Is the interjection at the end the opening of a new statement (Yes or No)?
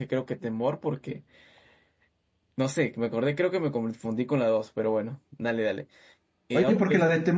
Yes